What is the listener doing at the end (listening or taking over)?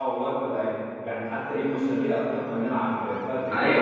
taking over